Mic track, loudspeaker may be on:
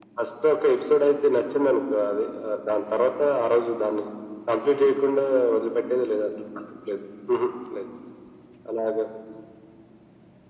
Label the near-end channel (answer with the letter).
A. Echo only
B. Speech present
A